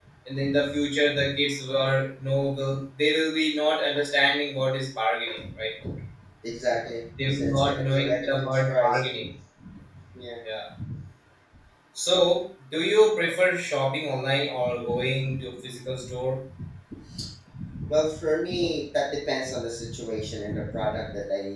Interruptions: present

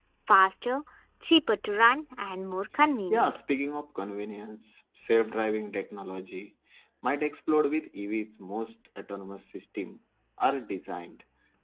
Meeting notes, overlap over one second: none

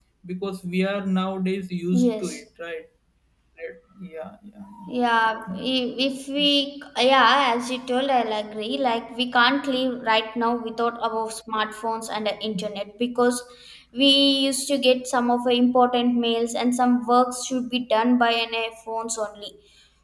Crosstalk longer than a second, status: none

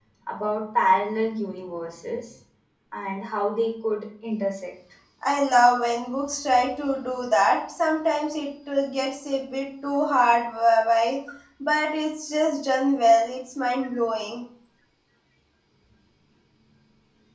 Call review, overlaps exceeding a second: none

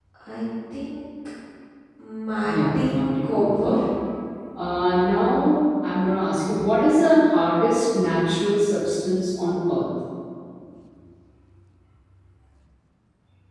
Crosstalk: present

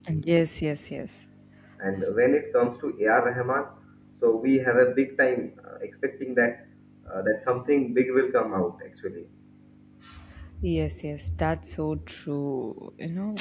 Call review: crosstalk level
none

